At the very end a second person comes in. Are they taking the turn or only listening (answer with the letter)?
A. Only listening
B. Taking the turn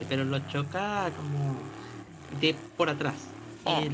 A